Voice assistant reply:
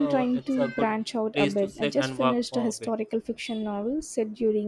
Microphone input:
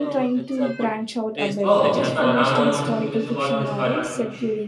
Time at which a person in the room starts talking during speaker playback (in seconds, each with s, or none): 1.6 s